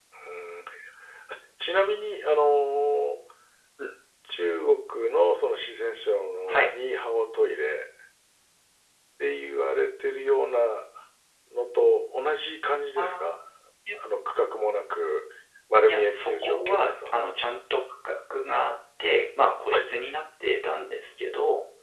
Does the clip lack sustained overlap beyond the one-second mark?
No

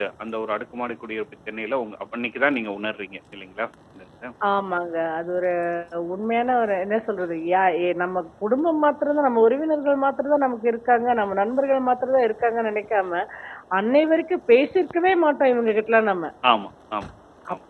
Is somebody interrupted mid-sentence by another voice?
No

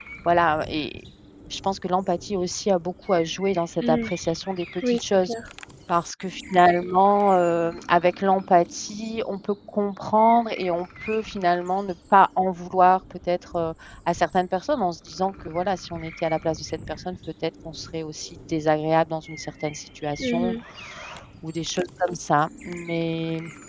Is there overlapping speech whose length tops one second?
No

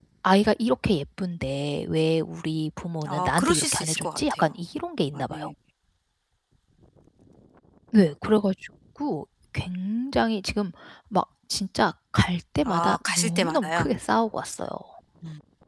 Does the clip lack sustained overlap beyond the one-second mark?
No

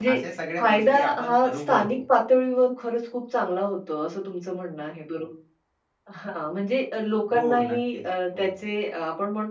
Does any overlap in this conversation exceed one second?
Yes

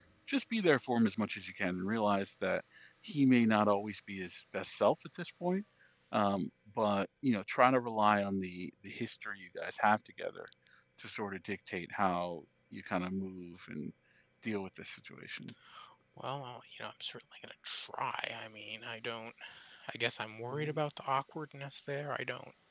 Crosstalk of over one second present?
No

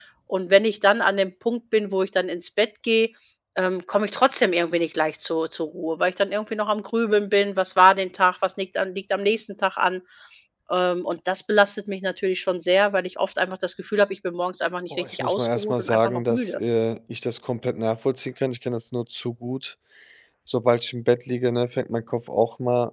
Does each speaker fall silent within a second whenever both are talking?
No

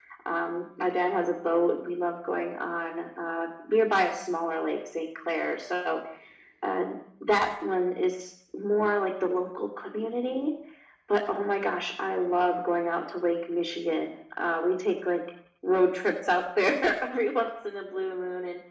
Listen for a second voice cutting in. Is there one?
No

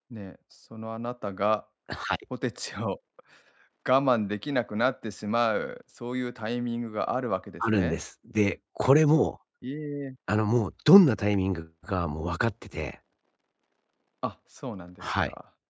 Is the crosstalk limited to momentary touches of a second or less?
Yes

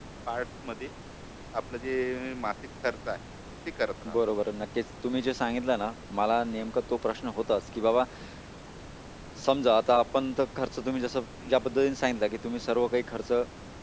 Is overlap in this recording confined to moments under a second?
Yes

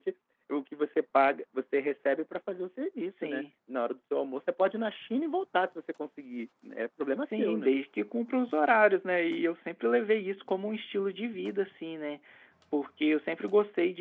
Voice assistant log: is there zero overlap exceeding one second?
Yes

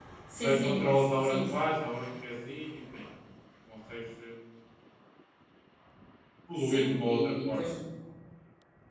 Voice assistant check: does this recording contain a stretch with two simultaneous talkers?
Yes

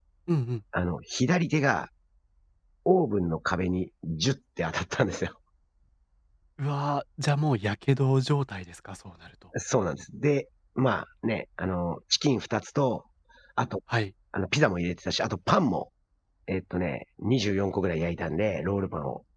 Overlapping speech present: No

